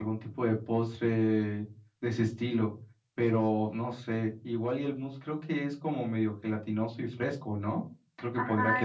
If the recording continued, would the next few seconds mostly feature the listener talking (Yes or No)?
Yes